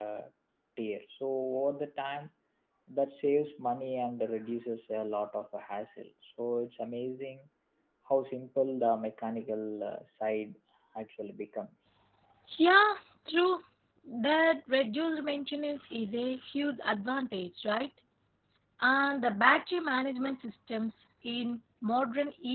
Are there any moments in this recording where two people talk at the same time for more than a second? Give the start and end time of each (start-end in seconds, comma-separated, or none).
none